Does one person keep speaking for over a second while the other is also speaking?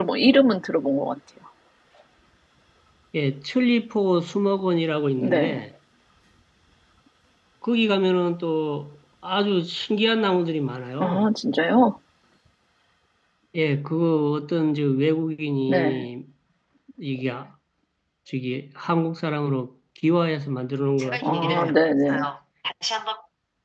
No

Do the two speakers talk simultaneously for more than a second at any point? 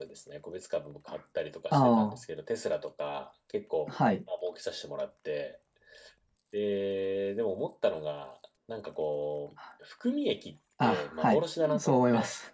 Yes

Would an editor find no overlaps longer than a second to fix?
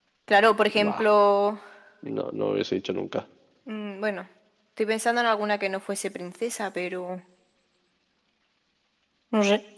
Yes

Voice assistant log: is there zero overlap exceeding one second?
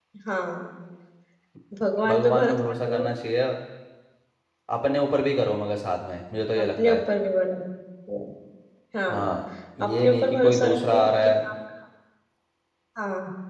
No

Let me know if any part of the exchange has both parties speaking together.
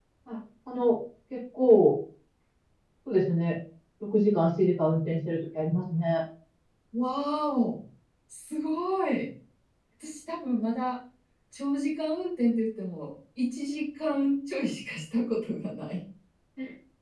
No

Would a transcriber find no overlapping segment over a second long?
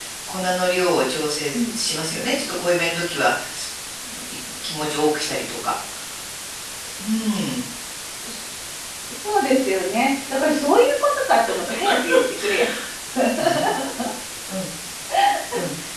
Yes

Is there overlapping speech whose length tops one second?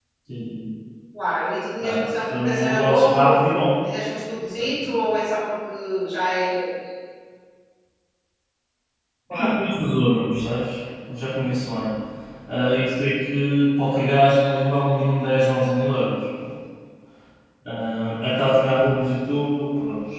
Yes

